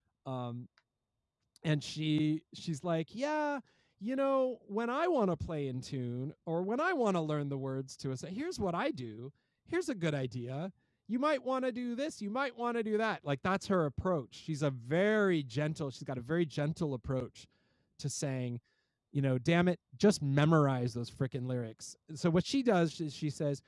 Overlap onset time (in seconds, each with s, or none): none